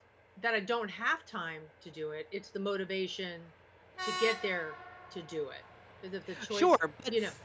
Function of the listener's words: taking over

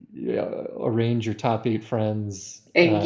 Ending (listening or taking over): listening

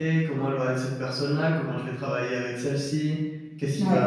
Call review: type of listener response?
listening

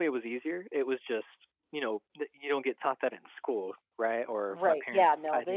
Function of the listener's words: taking over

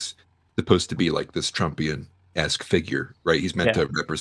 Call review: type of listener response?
listening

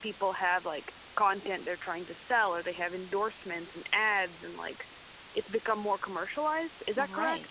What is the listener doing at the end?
taking over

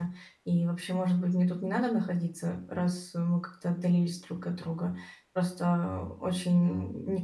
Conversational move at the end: listening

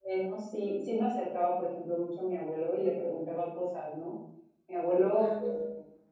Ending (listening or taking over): listening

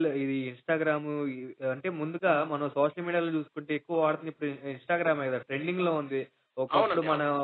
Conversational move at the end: listening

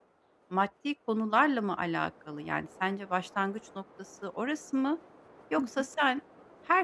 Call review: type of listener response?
listening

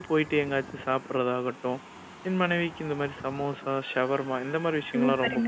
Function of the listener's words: taking over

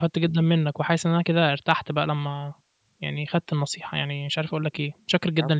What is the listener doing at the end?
taking over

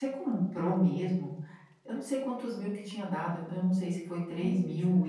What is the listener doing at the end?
listening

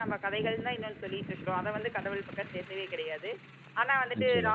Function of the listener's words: listening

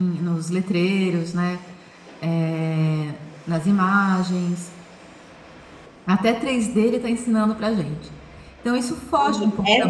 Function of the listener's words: taking over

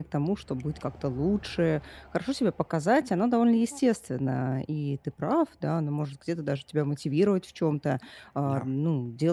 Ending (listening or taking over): listening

